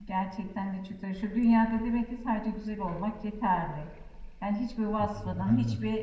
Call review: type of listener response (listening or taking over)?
listening